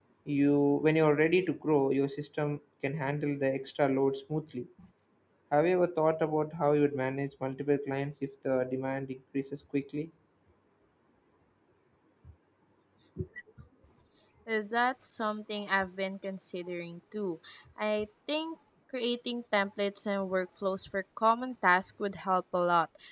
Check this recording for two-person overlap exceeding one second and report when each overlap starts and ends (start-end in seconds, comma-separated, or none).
none